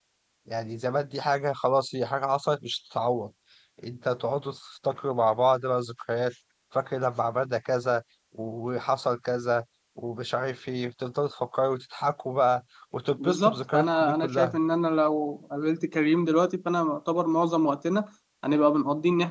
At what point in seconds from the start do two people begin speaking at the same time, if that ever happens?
13 s

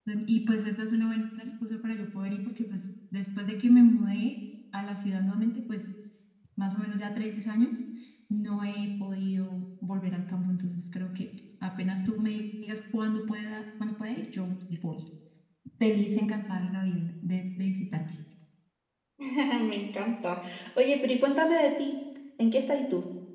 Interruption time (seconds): none

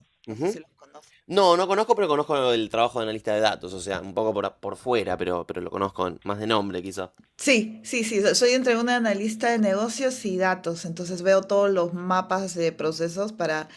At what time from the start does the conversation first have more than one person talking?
none

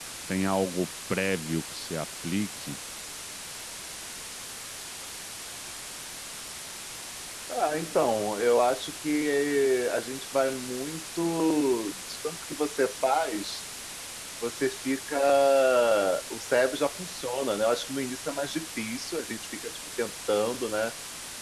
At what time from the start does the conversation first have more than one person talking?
none

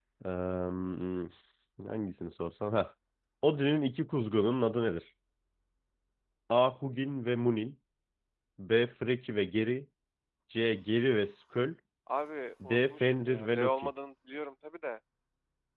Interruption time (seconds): 13 s

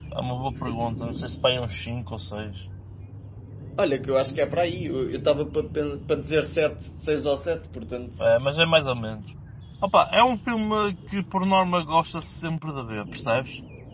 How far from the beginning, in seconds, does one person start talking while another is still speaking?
none

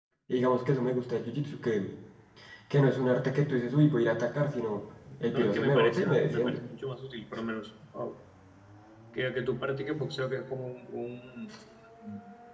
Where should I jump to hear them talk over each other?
5 s

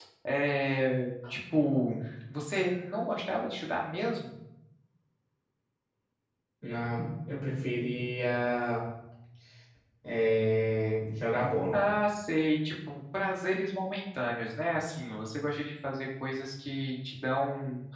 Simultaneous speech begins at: none

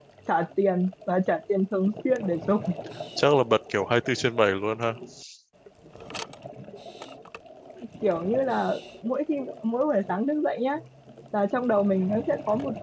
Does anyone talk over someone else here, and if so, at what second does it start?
none

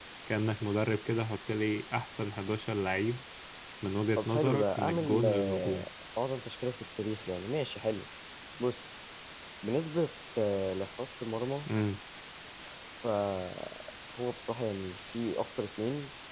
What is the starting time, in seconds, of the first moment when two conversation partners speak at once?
4 s

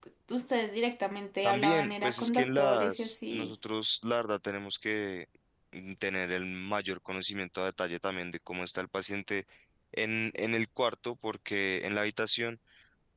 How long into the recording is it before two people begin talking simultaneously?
1 s

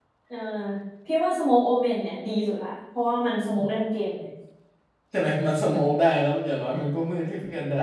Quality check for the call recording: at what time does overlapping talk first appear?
none

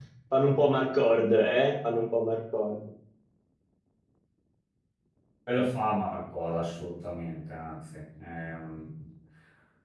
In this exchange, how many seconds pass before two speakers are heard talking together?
none

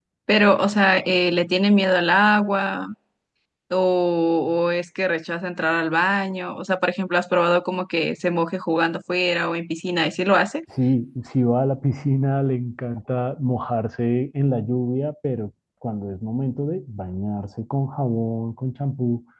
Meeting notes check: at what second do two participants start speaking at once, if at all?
none

